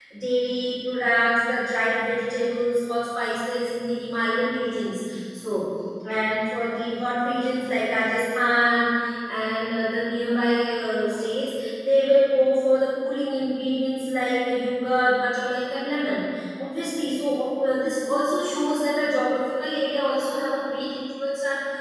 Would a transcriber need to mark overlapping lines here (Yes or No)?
No